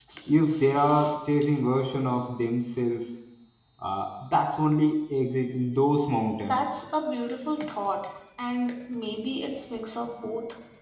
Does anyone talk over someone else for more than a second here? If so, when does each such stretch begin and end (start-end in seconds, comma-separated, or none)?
none